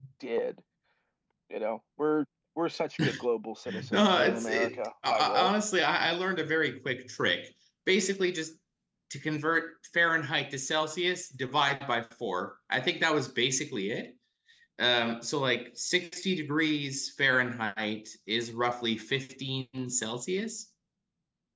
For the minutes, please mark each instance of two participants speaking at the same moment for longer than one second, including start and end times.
3.9-5.5

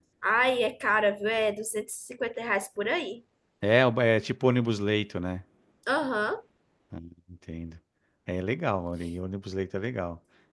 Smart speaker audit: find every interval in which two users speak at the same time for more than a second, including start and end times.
none

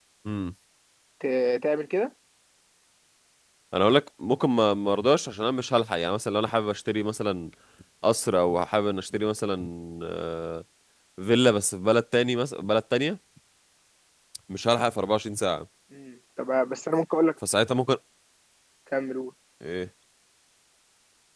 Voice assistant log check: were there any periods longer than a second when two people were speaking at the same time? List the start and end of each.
none

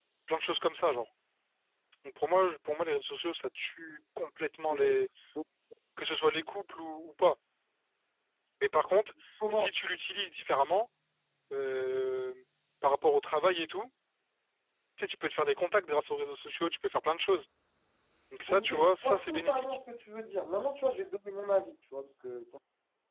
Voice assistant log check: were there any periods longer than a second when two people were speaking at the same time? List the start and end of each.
18.5-19.8

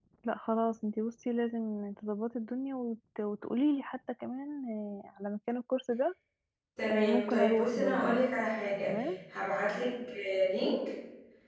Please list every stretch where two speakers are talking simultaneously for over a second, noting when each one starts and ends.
6.9-8.2

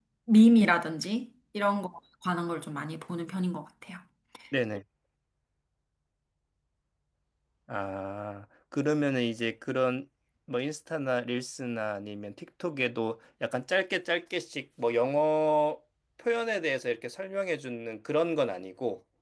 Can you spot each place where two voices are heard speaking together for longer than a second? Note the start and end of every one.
none

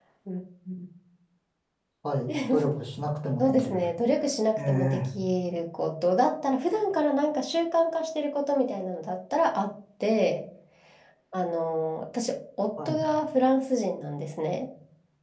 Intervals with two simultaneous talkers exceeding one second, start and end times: none

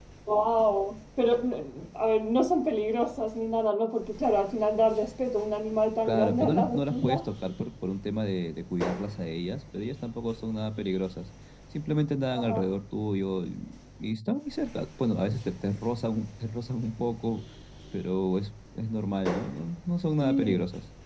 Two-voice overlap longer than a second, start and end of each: 6.0-7.2

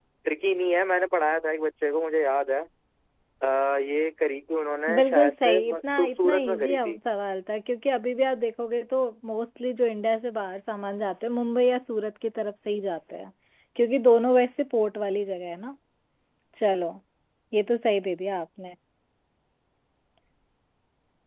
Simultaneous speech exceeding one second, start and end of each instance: 5.0-7.0

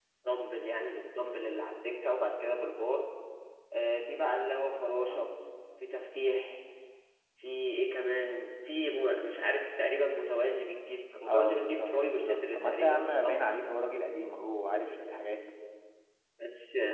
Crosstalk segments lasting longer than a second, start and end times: 11.3-13.4

